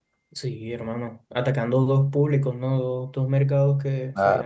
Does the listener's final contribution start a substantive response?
No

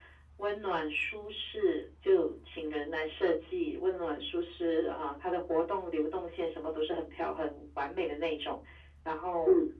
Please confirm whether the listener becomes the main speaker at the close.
No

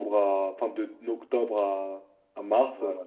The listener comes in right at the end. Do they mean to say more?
Yes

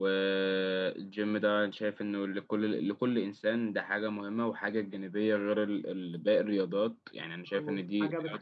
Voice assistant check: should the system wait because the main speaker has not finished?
No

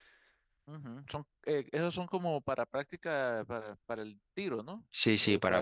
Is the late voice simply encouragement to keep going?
No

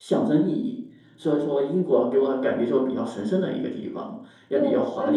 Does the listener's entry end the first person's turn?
Yes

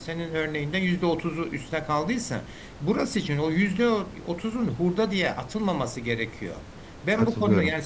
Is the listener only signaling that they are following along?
Yes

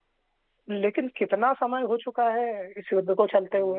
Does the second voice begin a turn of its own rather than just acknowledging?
Yes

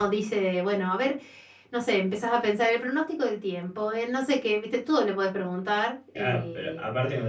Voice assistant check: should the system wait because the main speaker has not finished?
No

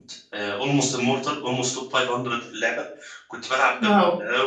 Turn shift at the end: No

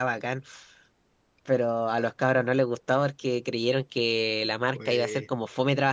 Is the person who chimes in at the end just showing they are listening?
Yes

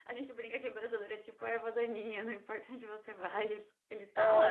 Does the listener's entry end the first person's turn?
Yes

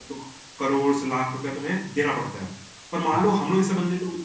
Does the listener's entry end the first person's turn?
No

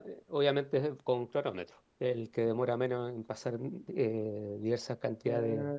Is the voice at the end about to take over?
Yes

